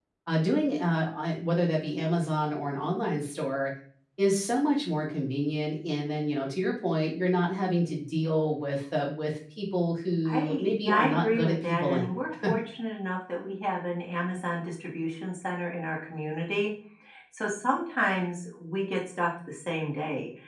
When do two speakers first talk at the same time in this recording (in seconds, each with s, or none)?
10.2 s